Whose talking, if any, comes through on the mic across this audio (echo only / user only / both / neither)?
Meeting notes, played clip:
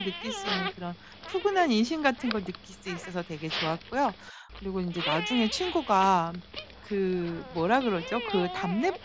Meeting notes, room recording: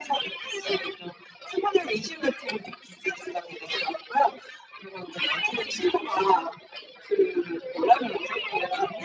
echo only